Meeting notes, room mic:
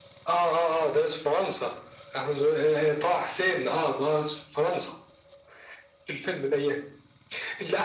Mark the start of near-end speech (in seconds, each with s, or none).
none